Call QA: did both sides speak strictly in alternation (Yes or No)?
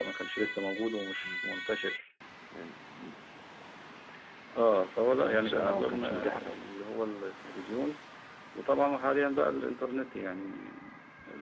No